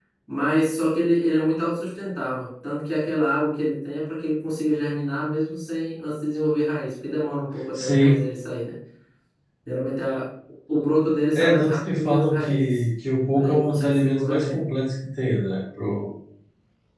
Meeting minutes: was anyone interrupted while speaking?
Yes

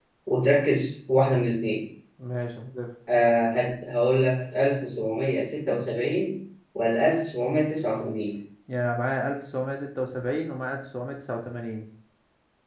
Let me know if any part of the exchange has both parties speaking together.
No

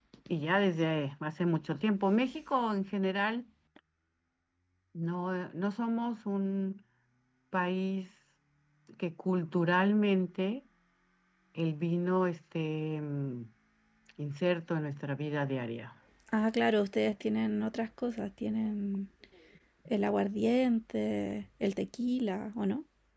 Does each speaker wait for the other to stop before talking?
Yes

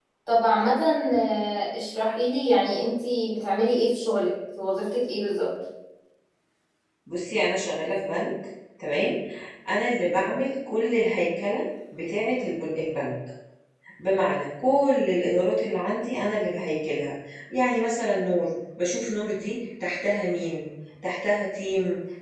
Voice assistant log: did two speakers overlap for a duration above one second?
No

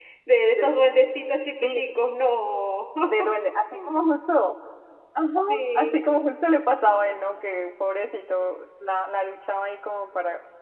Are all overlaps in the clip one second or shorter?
Yes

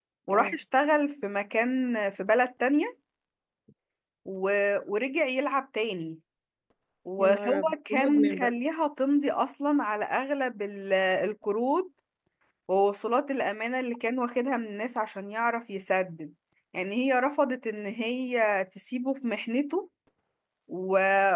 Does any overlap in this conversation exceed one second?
Yes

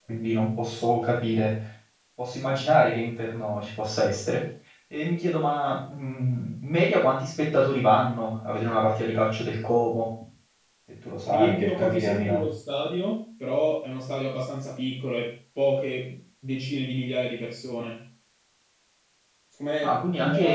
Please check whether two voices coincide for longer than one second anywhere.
Yes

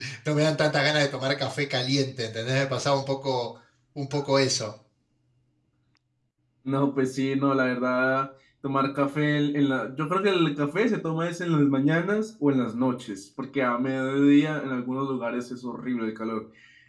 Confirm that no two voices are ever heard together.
Yes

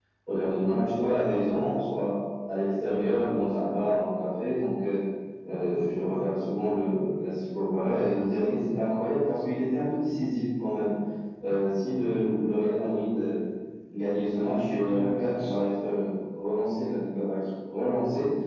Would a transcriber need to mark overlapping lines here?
Yes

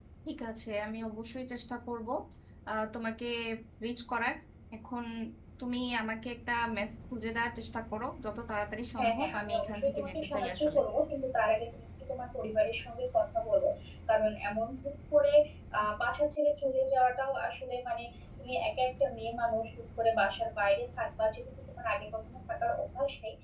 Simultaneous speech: Yes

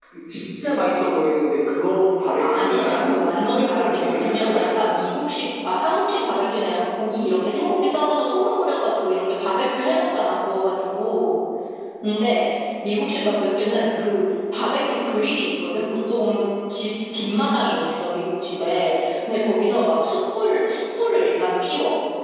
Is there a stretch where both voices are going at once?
Yes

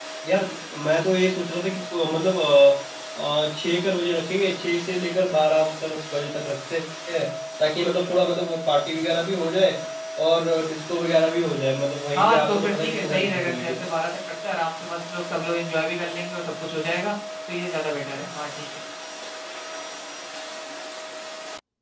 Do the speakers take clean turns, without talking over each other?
No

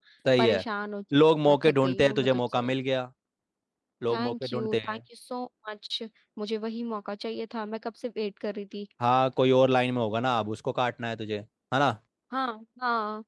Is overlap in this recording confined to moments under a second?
No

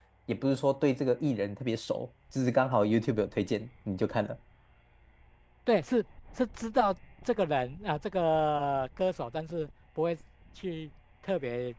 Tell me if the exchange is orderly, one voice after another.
Yes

